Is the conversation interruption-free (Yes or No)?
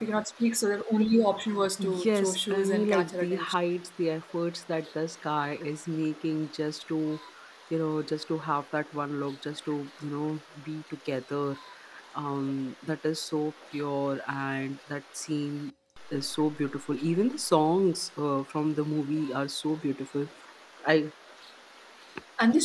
No